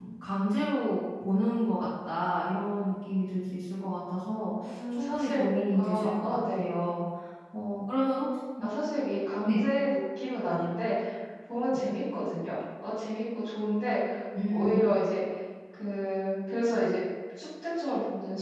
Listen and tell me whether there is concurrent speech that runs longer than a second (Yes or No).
Yes